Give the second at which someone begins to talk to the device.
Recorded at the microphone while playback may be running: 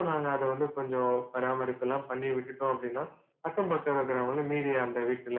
none

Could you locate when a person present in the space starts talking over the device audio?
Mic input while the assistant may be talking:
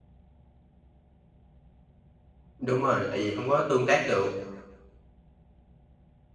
2.6 s

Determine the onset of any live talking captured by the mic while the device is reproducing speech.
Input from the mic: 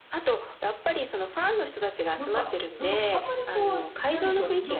2.2 s

